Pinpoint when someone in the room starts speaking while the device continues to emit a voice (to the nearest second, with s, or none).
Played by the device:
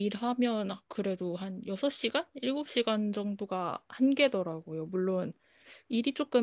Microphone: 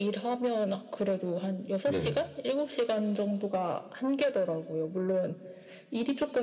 2 s